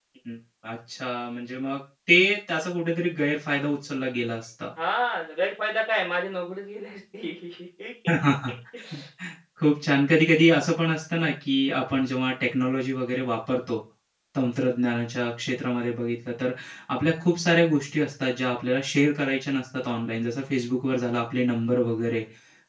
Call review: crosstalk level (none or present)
none